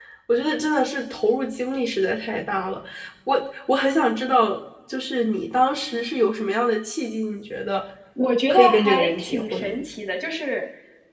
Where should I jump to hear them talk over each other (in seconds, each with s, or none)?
8.5 s